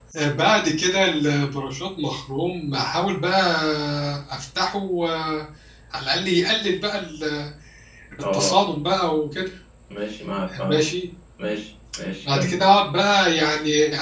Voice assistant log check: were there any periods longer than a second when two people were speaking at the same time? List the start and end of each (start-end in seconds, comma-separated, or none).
none